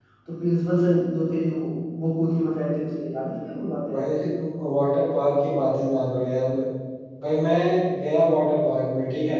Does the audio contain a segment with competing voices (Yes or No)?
No